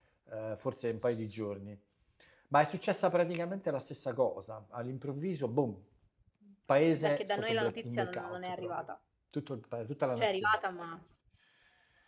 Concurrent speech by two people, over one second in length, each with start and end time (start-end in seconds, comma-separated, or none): 7.0-8.7